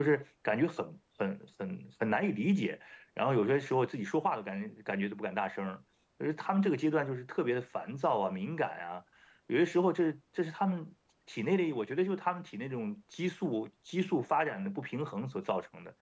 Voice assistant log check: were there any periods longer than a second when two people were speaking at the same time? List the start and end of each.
none

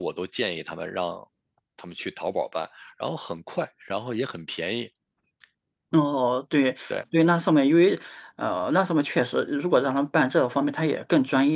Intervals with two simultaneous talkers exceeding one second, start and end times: none

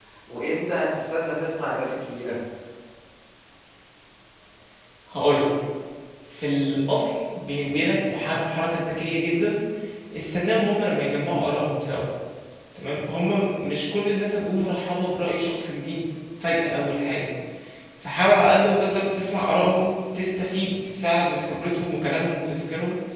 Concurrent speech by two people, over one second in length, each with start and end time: none

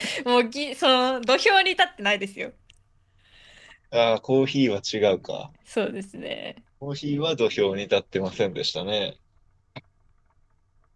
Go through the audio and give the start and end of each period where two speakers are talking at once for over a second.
none

